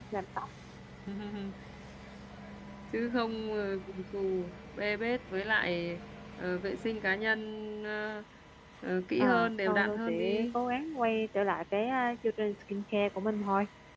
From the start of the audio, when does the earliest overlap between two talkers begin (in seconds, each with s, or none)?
9.2 s